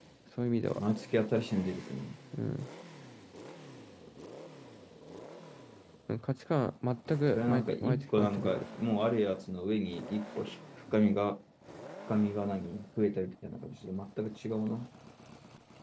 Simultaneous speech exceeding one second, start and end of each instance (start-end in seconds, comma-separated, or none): 7.4-8.6